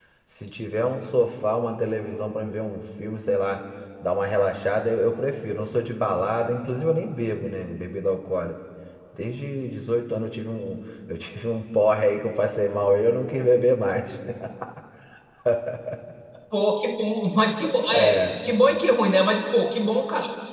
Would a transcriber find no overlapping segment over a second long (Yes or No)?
Yes